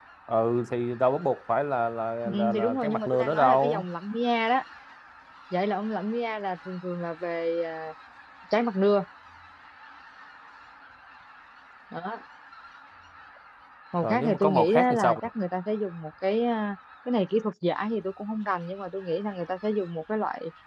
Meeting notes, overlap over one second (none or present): present